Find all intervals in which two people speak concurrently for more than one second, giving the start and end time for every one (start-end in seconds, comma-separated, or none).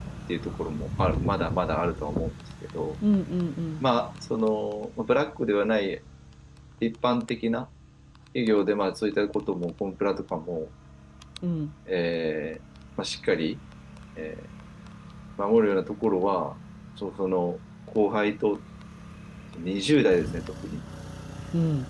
none